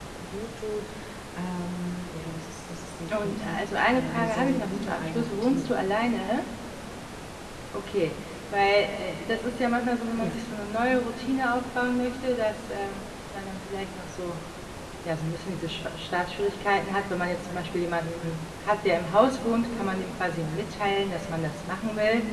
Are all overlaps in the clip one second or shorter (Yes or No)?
No